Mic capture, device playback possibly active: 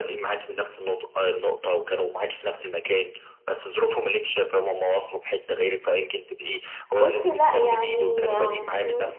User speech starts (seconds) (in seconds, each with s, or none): 7.0 s